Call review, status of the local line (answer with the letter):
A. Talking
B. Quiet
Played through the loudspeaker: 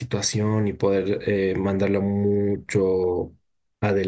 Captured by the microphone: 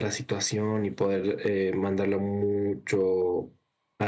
B